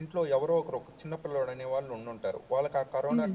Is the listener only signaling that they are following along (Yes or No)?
Yes